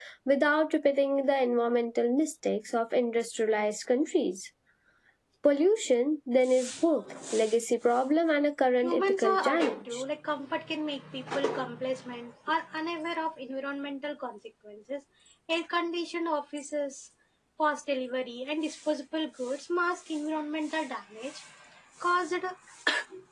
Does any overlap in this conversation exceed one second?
Yes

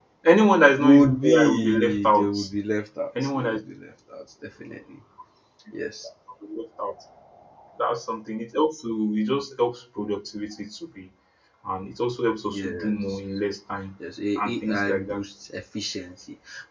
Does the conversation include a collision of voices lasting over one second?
Yes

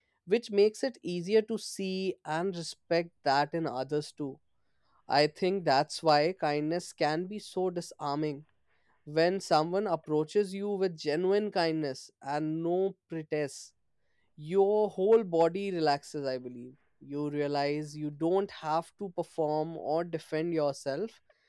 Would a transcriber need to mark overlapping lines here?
No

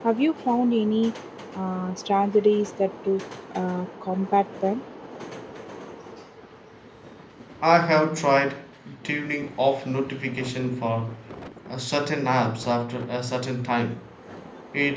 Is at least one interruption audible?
No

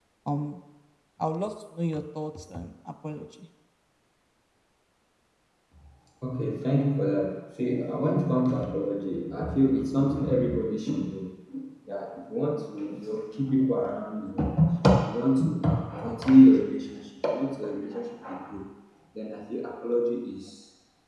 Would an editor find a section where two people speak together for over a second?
No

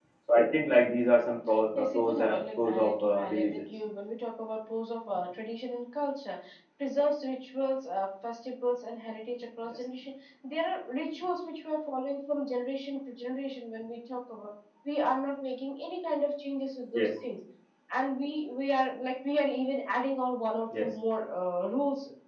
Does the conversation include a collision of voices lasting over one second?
Yes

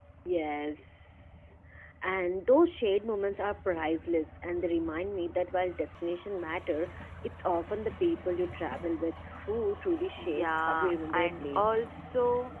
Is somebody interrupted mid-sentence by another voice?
Yes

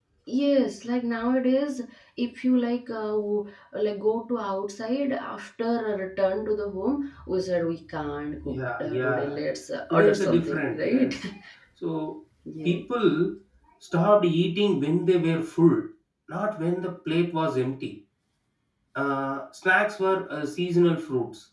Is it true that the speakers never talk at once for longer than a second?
No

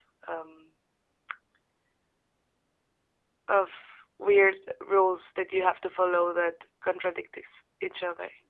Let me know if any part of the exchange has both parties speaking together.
No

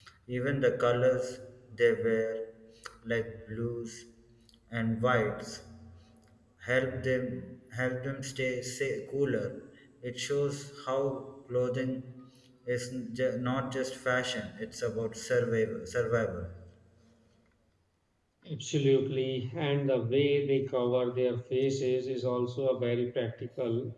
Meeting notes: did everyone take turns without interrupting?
Yes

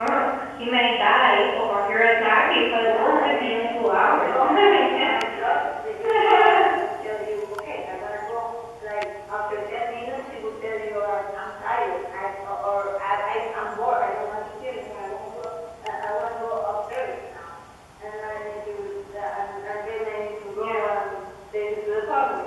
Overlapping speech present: Yes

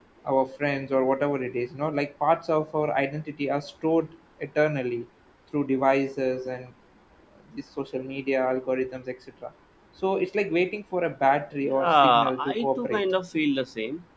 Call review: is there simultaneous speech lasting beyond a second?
Yes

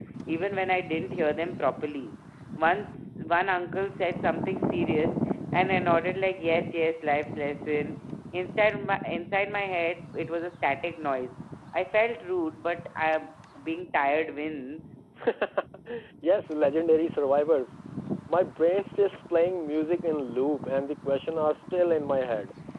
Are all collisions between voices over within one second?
Yes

